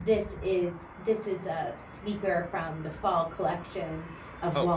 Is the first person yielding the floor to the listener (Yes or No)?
Yes